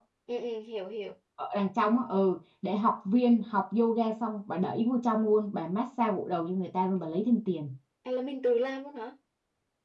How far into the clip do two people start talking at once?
none

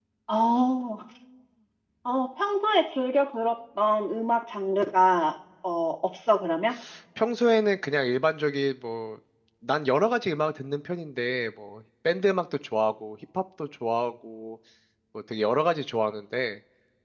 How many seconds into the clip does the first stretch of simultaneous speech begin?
none

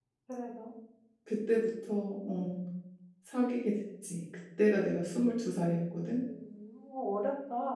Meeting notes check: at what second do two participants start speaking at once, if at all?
none

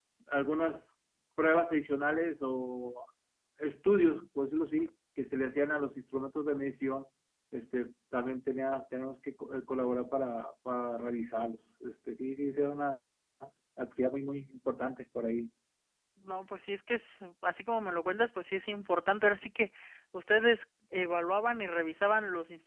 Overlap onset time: none

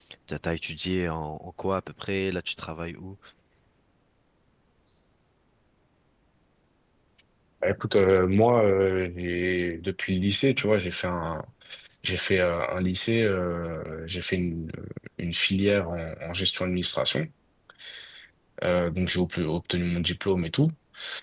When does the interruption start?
none

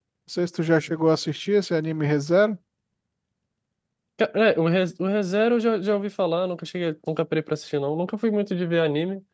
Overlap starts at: none

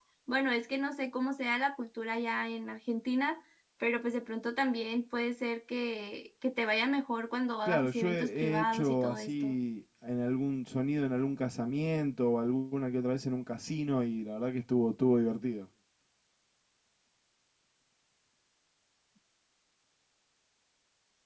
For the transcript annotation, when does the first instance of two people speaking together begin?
7.6 s

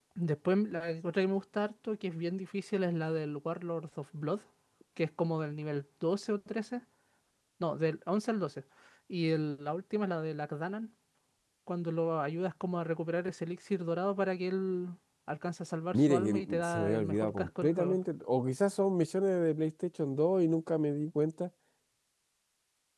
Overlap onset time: 15.9 s

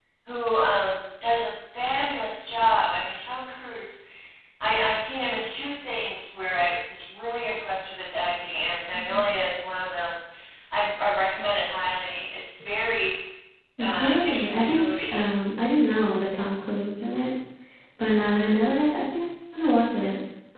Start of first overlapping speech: 13.8 s

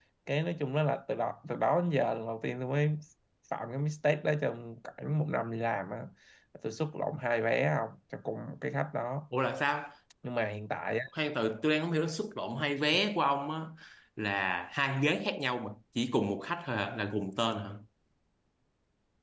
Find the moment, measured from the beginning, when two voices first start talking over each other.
none

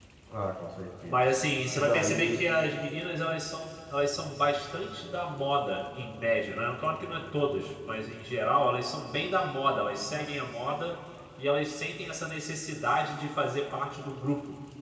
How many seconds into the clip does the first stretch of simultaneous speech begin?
1.1 s

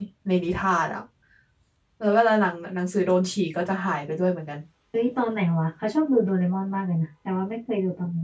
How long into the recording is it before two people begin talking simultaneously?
none

